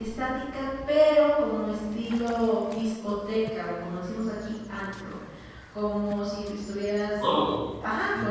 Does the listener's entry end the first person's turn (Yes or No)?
Yes